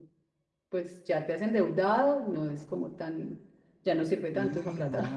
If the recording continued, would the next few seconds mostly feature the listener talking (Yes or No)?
Yes